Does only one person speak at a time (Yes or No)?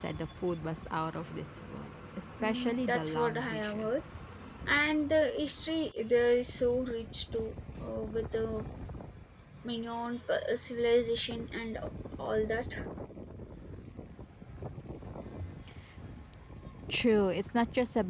No